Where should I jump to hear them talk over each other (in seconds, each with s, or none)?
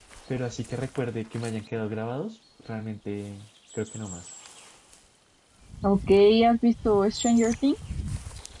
none